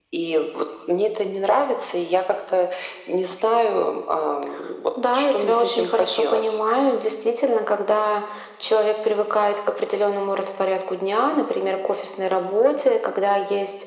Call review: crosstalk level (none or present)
present